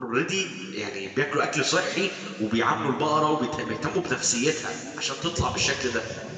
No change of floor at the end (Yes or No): No